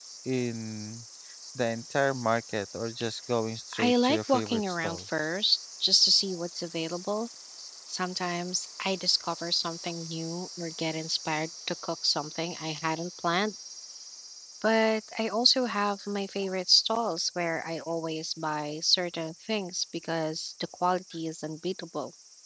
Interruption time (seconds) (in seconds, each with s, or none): 3.7 s